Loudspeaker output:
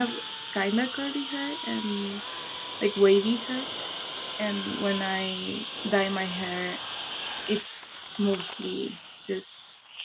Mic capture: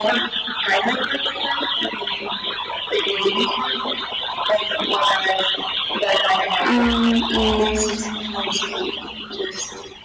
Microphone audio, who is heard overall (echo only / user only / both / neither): both